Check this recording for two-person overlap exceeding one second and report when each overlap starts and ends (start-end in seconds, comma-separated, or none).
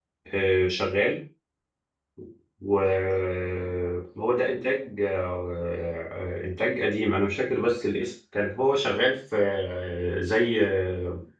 none